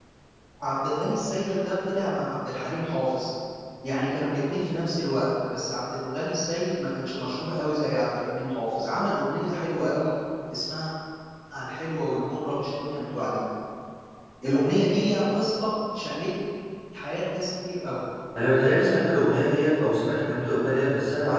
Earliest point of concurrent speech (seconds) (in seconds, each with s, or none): none